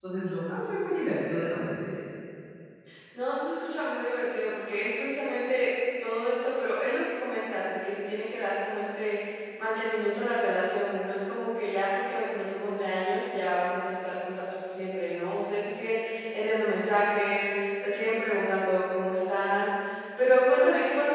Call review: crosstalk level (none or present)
none